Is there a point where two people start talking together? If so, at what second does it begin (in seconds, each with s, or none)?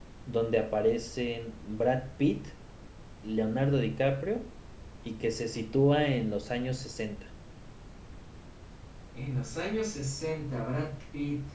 none